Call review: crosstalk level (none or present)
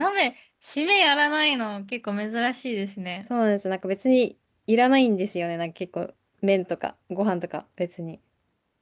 none